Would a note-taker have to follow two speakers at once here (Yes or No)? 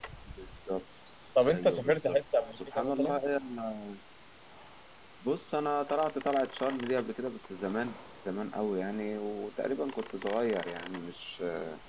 Yes